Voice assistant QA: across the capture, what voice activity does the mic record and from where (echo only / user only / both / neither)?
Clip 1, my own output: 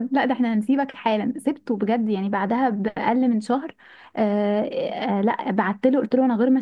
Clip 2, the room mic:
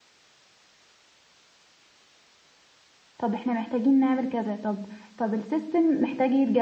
user only